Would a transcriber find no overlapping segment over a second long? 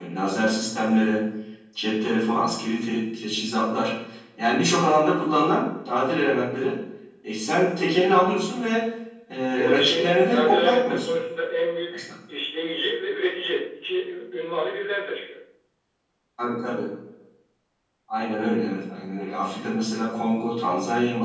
No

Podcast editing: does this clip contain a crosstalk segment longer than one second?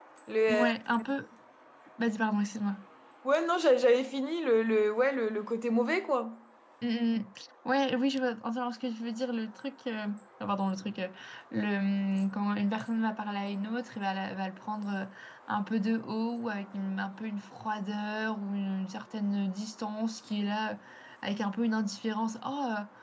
No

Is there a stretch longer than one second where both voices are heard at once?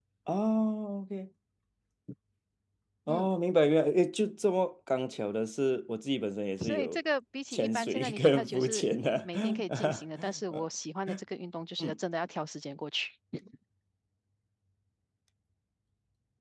Yes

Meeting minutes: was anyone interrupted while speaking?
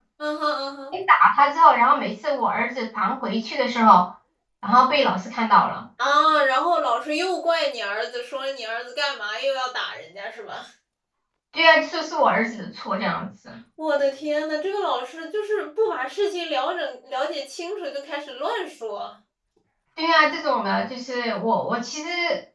No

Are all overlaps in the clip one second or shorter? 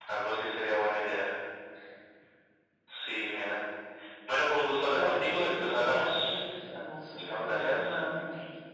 No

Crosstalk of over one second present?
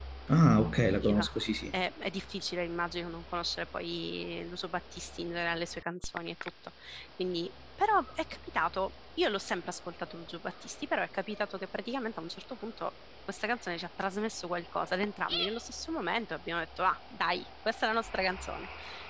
No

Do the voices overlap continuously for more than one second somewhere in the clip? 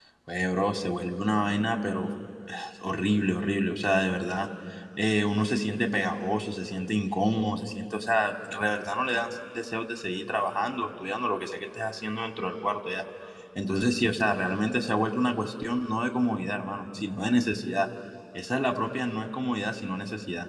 No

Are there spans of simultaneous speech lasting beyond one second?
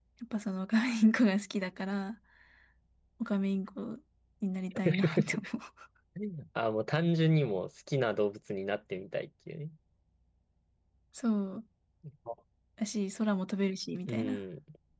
No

